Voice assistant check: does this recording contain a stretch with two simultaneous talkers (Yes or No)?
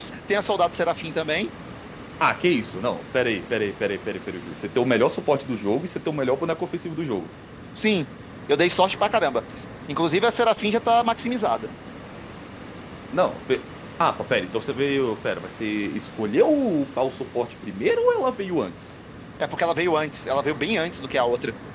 No